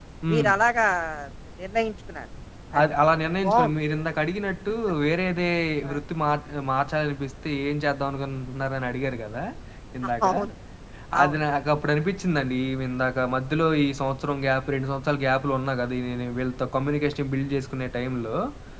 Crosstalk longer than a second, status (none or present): none